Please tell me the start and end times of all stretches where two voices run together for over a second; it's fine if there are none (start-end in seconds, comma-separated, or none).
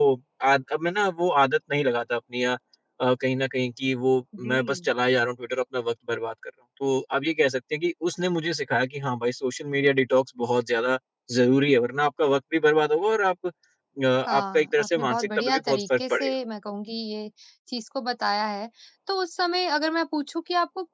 14.3-16.3